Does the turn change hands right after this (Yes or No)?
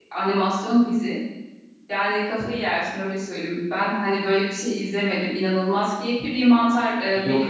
No